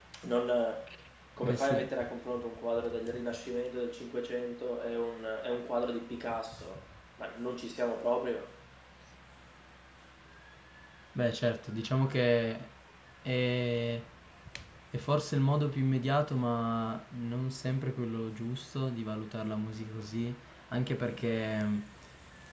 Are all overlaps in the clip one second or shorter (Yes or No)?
Yes